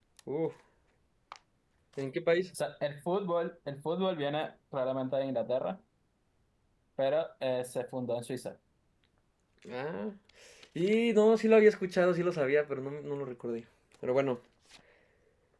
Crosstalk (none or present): none